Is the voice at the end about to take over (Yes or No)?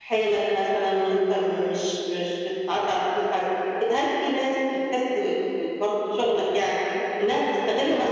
No